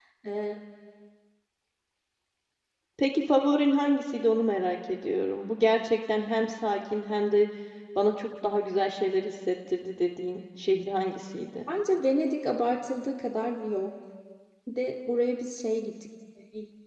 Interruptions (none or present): none